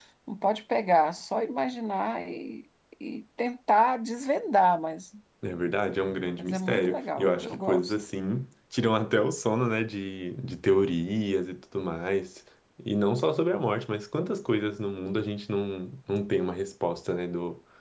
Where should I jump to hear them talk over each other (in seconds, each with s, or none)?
6.4 s